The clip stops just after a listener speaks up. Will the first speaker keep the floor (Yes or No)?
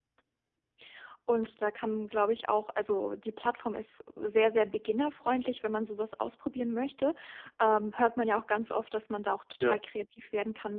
Yes